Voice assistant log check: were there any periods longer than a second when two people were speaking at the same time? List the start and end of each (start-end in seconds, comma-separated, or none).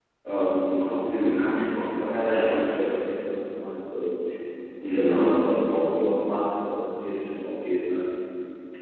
none